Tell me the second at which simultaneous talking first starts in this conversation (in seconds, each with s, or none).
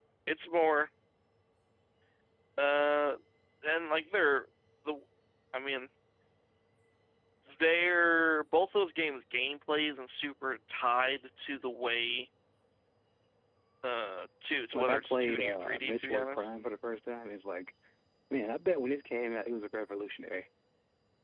14.7 s